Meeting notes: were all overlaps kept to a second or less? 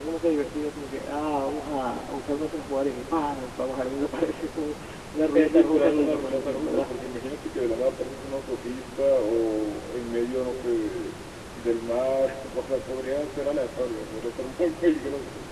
No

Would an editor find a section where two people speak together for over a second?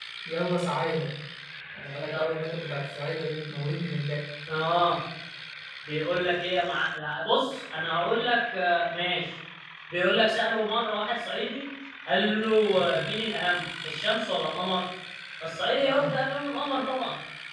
No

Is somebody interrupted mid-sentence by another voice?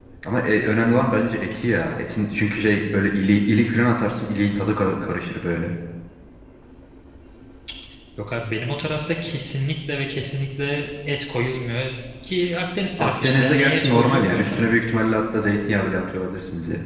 Yes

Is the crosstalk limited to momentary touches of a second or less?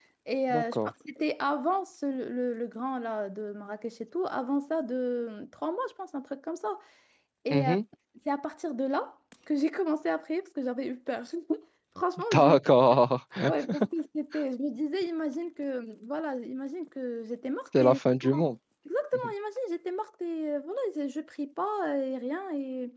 Yes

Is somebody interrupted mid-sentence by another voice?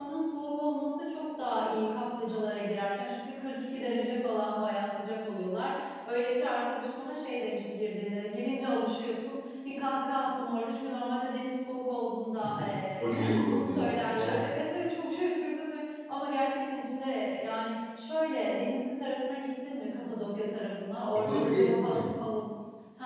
Yes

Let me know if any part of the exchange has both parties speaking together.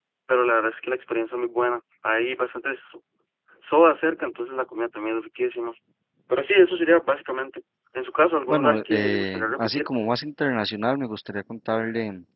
Yes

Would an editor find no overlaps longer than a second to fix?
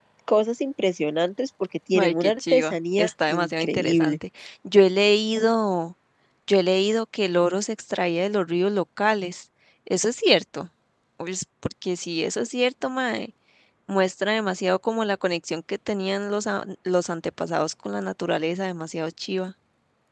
No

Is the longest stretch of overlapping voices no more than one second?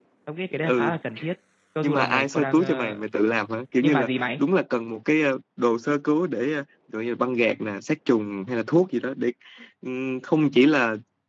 No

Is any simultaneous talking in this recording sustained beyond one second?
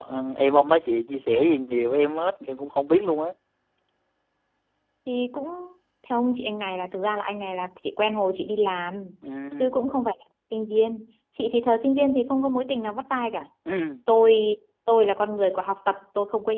No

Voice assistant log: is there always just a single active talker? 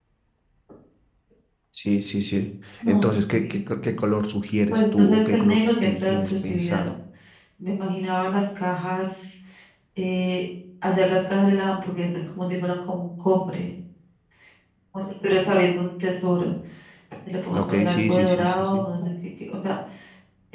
No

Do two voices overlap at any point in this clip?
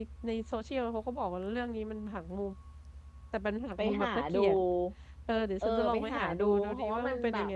Yes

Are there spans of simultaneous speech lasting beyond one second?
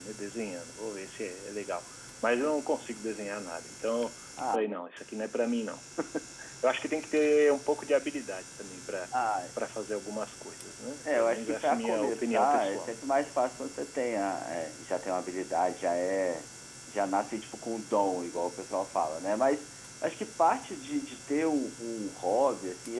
Yes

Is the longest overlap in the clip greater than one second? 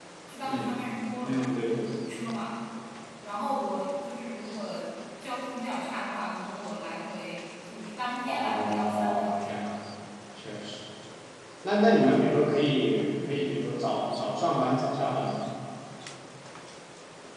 Yes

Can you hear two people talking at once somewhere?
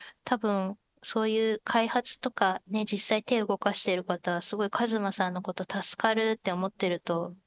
No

